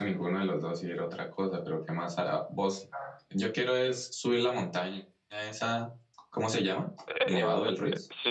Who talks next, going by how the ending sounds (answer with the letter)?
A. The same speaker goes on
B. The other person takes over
B